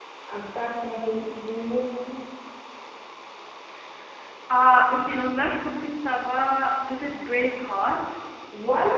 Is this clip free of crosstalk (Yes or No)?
Yes